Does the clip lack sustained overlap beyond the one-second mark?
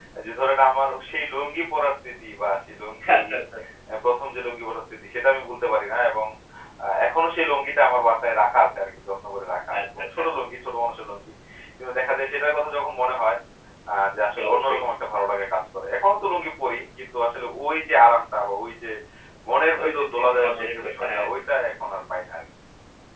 No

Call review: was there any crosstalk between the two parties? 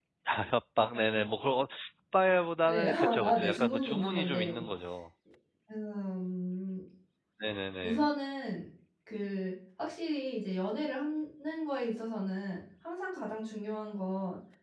Yes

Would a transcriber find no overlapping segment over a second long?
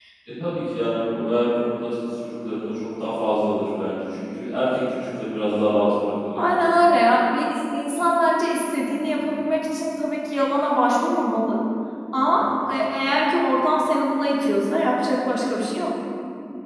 Yes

